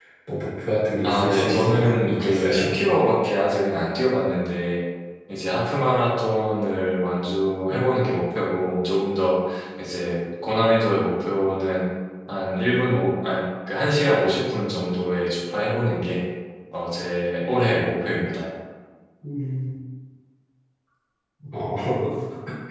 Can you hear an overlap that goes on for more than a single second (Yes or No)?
Yes